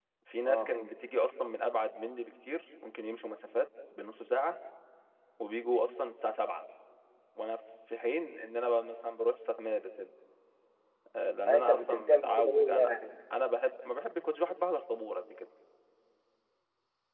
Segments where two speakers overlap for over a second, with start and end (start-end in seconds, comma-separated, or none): 11.4-13.0